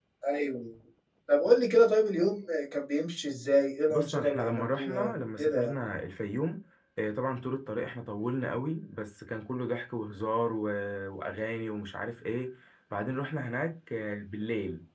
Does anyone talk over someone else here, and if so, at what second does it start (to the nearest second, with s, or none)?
4 s